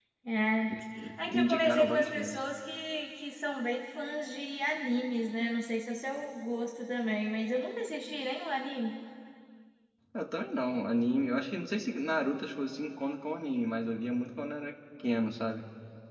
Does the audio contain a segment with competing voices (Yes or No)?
Yes